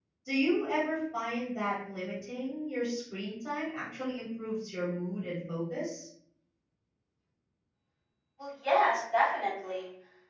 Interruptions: none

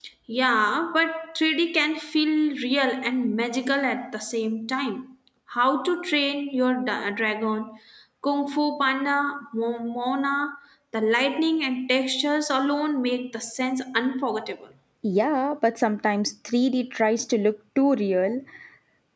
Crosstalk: none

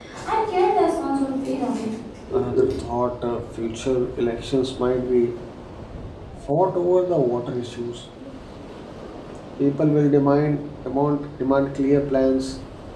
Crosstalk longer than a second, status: none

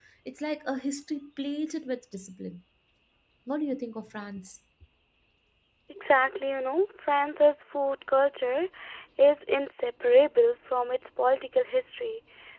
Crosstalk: none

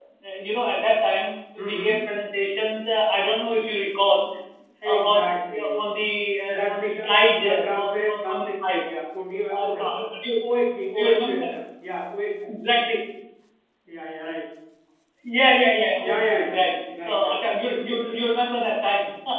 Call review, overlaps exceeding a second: present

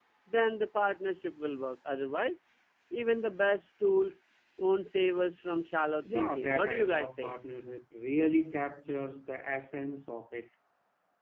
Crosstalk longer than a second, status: present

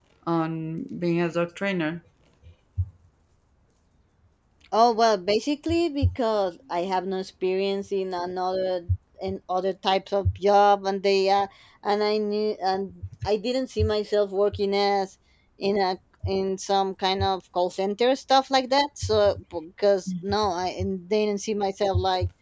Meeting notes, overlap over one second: none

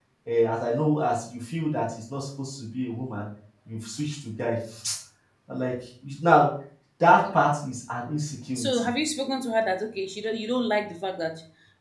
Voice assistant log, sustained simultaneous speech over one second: none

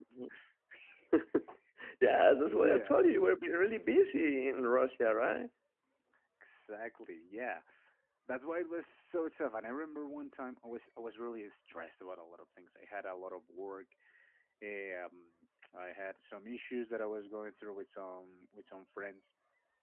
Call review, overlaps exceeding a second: none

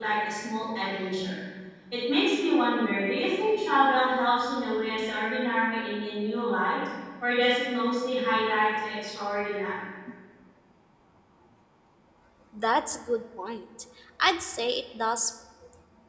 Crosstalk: none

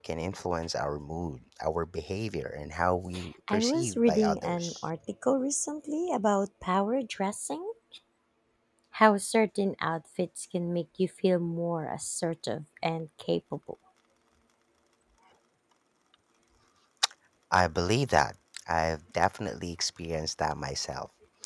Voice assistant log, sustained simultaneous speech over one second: present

